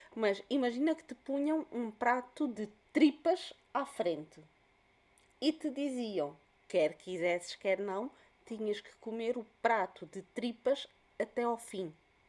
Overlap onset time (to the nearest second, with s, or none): none